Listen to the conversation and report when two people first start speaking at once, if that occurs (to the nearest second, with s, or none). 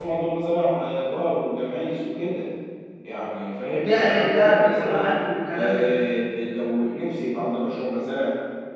4 s